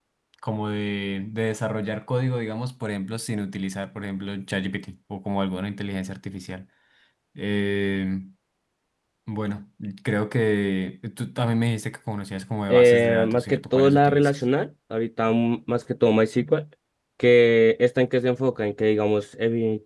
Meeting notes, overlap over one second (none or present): present